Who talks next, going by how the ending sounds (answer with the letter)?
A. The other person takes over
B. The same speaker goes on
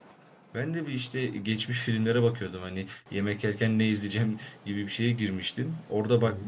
B